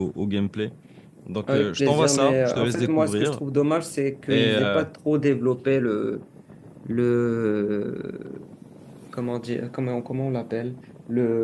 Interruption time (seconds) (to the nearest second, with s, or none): 2 s